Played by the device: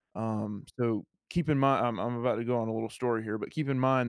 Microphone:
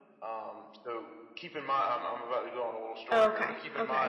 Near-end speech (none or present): present